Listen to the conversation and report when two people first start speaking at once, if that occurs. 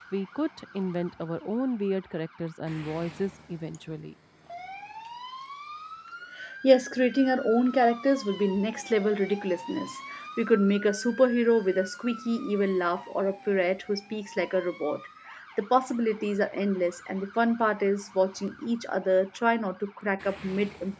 none

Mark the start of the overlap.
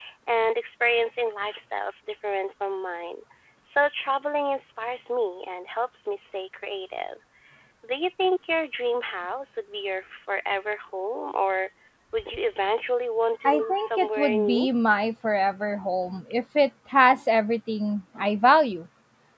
13 s

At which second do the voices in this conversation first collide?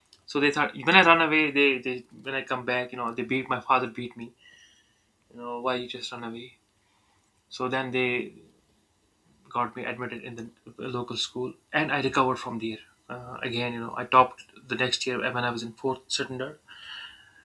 none

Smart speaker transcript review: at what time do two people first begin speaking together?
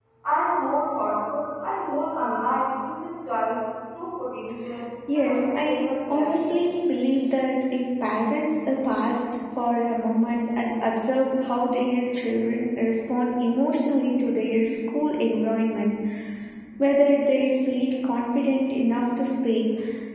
5 s

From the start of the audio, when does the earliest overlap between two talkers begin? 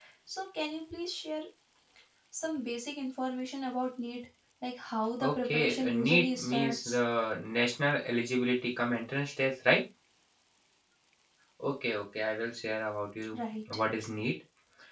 5 s

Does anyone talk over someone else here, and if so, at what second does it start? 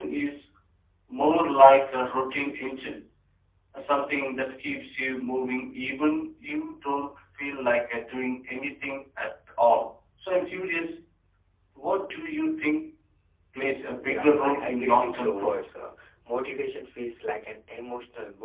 14 s

